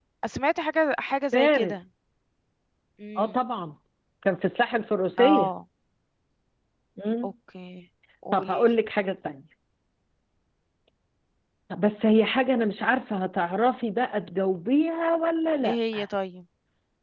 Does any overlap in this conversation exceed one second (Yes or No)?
No